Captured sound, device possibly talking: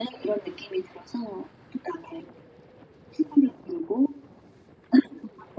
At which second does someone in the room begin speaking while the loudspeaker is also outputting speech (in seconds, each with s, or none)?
none